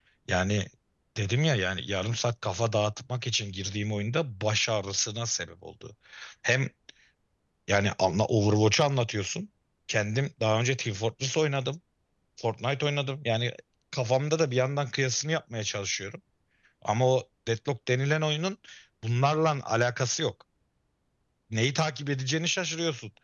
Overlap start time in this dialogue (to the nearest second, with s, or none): none